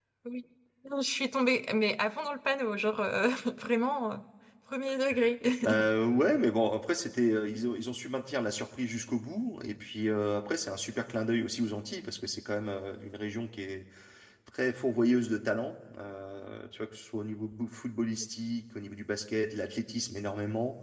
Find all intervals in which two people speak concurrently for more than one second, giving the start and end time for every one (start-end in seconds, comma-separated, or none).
none